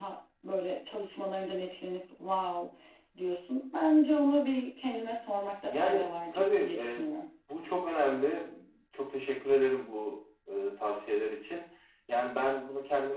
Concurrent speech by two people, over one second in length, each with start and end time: 5.7-7.0

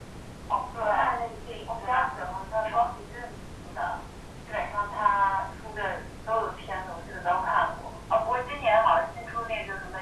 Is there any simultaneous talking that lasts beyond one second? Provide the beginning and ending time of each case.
1.7-3.0

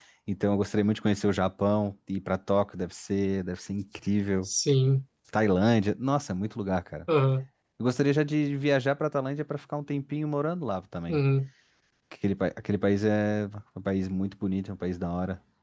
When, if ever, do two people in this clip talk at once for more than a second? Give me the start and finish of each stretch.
none

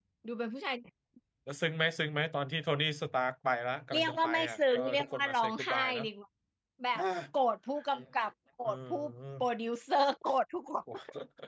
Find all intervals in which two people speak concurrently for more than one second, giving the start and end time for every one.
3.9-6.0

